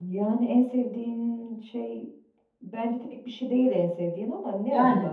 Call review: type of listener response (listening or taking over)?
taking over